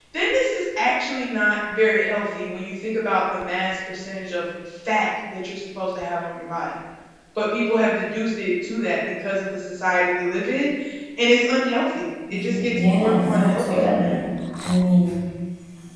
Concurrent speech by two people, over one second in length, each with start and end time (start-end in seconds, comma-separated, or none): 12.3-14.1